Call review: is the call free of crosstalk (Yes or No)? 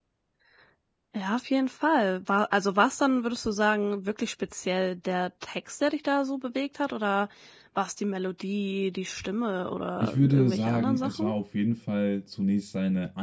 No